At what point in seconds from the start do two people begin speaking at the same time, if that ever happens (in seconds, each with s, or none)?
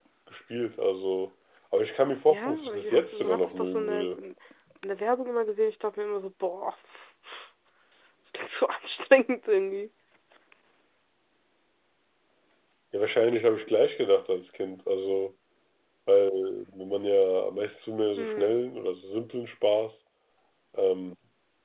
2.3 s